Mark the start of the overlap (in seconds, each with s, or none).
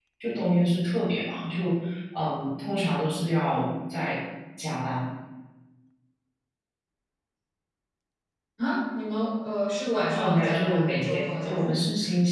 10.2 s